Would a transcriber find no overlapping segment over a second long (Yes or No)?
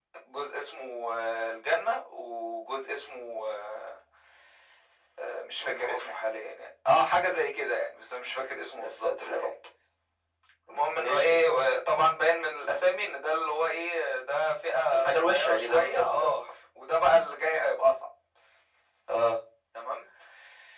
No